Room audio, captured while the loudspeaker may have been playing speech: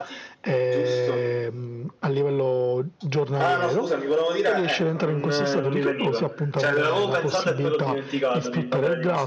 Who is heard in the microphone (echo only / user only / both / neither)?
both